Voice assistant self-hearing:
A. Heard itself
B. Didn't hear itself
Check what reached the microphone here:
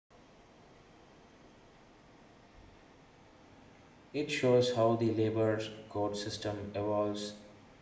B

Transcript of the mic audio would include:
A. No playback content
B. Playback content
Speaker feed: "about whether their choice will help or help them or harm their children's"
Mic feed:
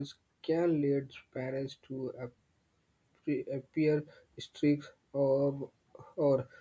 A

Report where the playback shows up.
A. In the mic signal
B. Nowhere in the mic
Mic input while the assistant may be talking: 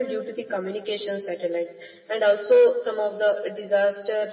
A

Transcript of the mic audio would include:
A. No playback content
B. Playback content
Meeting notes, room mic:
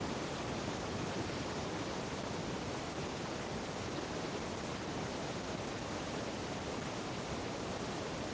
A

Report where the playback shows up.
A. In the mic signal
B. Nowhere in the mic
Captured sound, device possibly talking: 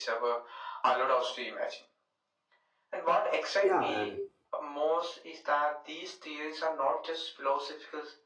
A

